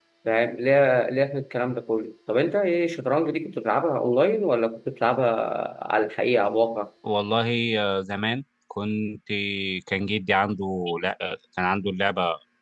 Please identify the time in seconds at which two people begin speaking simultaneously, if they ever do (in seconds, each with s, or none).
none